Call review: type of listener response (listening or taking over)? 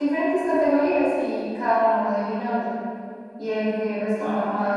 listening